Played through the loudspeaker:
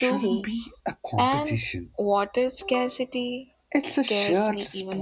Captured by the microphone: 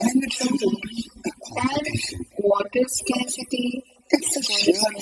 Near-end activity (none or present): none